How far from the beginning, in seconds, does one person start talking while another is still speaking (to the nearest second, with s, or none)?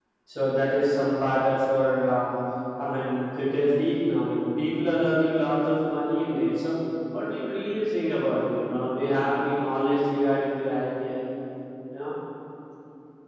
none